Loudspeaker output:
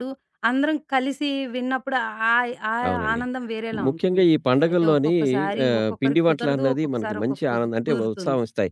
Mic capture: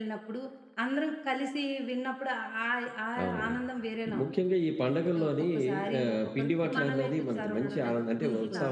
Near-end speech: present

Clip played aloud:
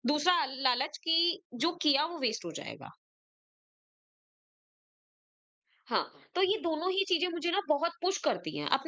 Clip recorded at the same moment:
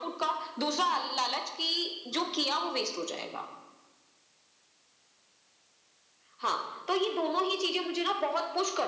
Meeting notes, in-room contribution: none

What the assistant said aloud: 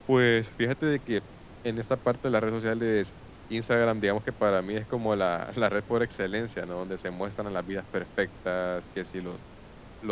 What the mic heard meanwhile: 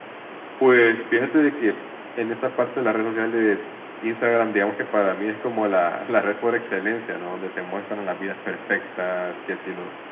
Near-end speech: none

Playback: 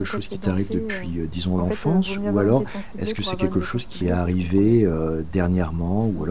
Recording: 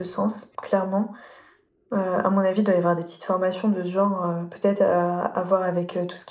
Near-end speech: present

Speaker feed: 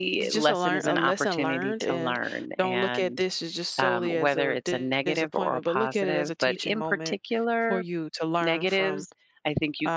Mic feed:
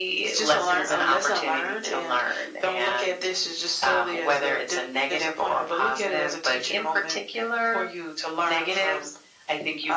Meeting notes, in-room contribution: none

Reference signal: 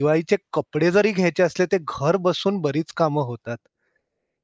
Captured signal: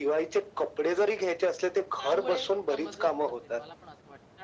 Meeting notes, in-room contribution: present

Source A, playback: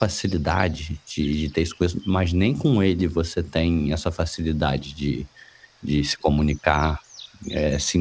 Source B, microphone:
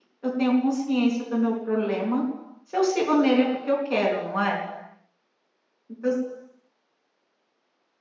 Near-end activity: present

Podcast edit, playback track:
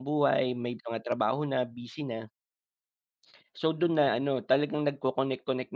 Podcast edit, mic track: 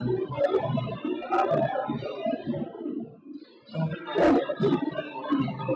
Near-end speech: none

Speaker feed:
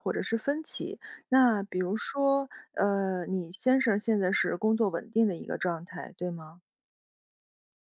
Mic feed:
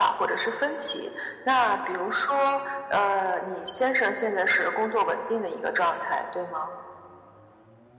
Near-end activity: none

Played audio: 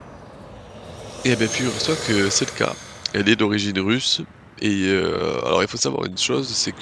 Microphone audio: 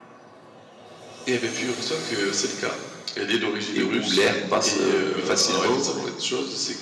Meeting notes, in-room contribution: present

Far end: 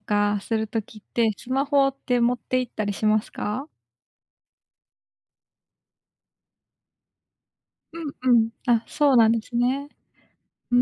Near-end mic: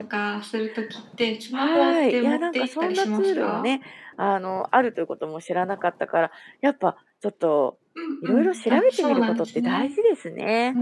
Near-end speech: present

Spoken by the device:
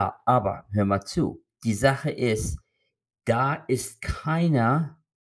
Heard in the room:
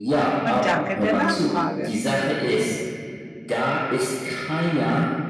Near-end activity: present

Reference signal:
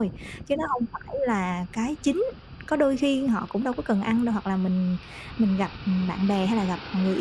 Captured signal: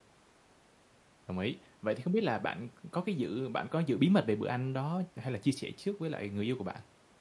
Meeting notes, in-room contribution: present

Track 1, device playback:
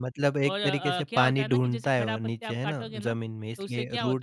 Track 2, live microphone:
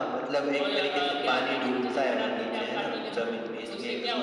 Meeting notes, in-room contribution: none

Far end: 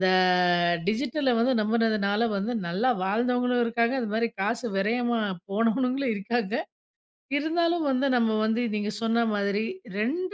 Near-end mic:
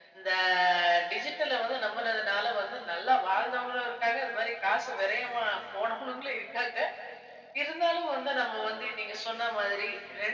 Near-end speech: none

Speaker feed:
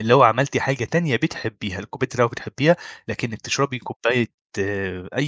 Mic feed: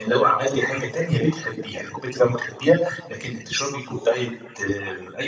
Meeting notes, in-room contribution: none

